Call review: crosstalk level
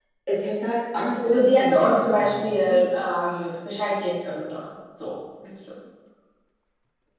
present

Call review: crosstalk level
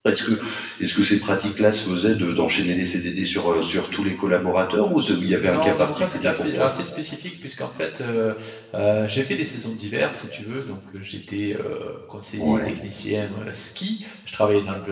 present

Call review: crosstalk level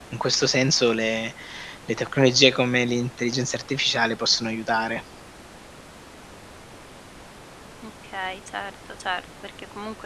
none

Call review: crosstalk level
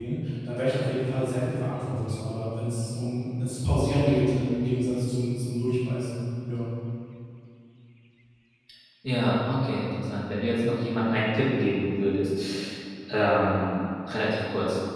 none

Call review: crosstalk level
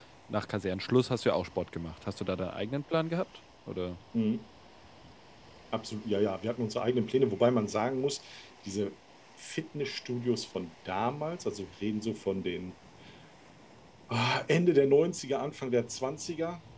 none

